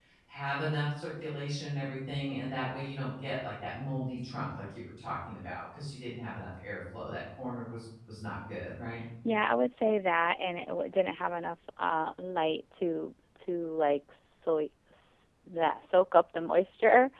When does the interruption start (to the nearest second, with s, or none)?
none